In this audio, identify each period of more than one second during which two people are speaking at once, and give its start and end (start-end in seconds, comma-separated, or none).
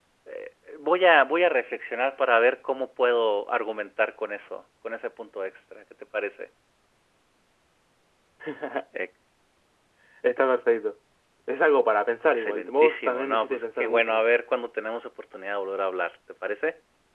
12.2-14.2